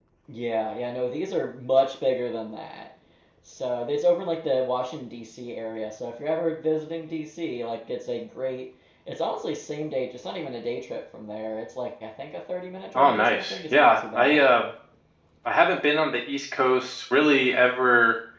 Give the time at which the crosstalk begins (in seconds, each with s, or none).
12.9 s